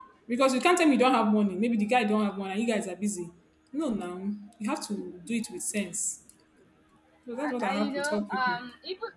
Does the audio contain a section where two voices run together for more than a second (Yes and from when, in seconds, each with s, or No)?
Yes, from 7.4 s